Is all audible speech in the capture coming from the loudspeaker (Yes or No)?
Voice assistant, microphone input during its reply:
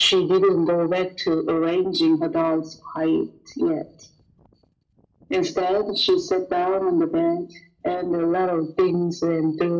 Yes